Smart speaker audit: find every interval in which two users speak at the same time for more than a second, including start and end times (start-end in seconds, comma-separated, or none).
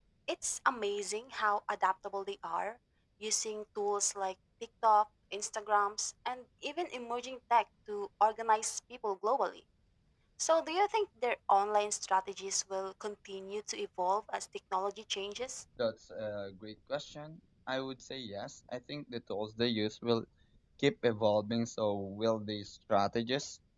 none